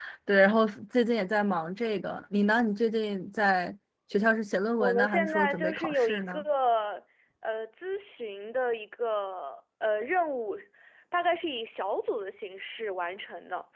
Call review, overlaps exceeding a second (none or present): present